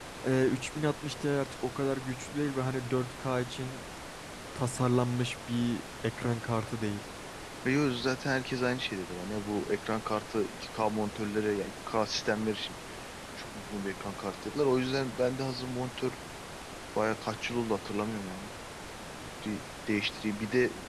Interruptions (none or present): none